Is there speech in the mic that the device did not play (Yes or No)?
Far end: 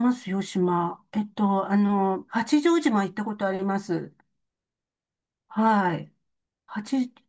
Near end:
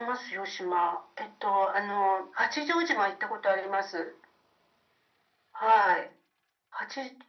No